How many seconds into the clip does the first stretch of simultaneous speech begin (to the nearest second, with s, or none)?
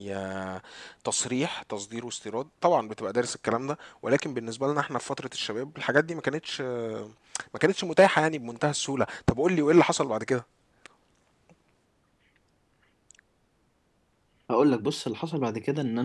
none